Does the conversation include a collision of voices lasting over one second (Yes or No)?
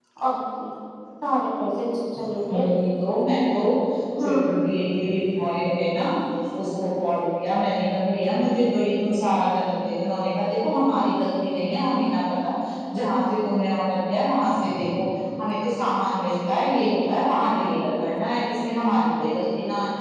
No